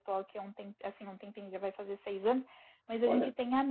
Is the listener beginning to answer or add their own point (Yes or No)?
No